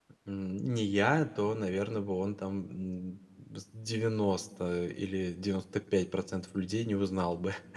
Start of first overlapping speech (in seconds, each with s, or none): none